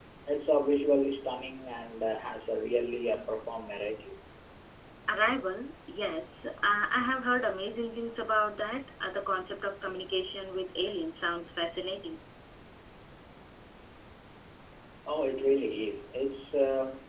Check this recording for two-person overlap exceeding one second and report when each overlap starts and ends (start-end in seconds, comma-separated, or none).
none